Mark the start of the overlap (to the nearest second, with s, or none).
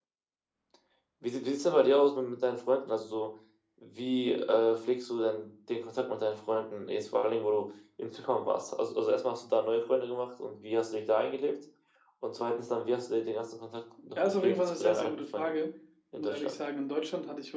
14 s